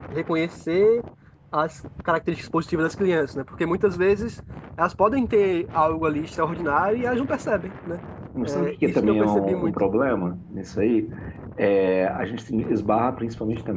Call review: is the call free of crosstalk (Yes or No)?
No